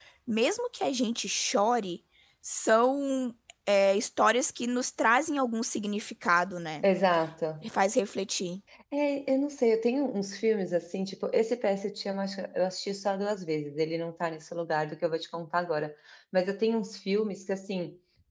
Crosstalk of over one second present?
No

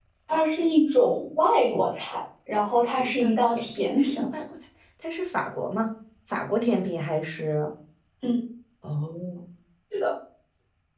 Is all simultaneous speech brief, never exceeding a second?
No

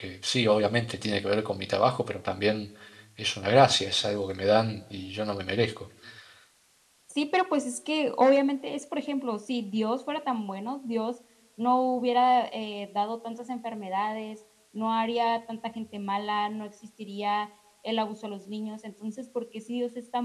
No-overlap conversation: Yes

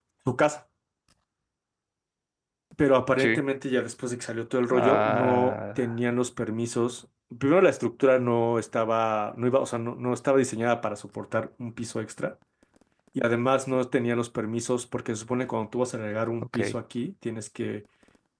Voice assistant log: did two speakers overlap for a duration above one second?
Yes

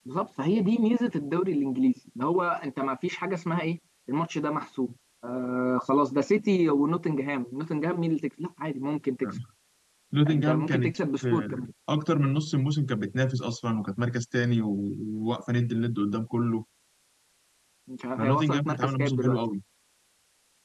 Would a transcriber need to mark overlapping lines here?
Yes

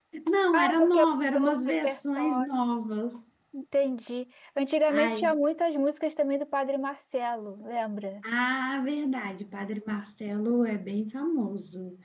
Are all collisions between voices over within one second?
No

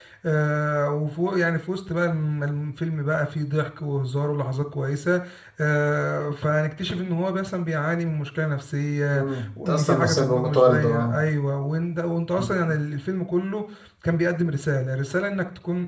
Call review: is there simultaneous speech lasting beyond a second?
Yes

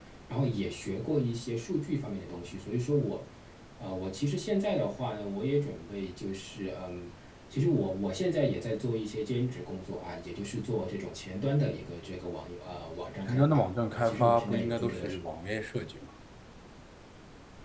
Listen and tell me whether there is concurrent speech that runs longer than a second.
Yes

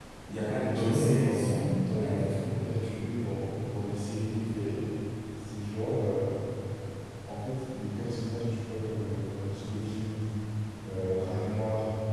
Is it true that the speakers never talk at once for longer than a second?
No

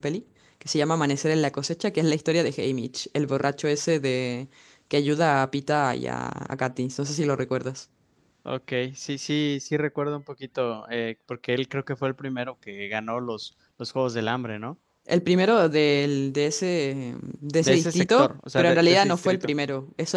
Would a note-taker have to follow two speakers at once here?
Yes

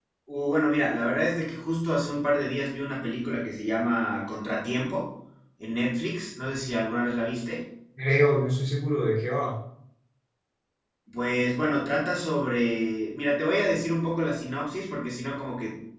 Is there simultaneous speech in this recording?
No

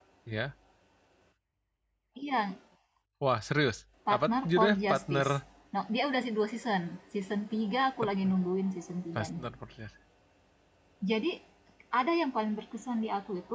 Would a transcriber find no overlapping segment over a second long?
No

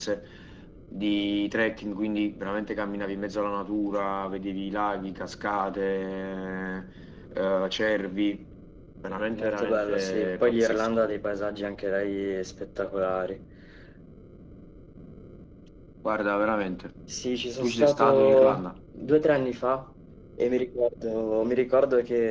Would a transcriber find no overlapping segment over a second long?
No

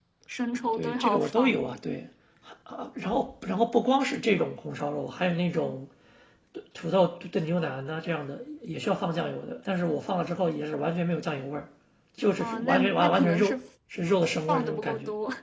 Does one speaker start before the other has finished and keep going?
Yes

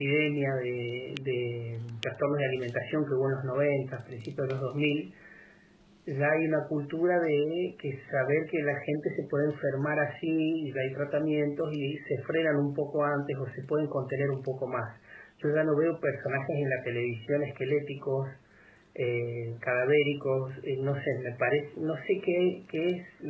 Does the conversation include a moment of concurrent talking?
No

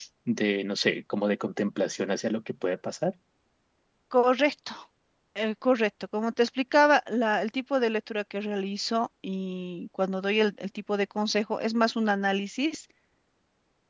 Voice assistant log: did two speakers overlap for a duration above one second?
No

